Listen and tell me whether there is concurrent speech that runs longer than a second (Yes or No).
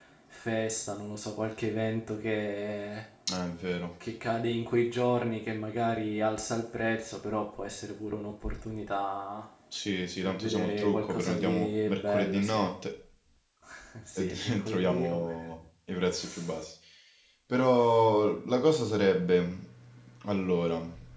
Yes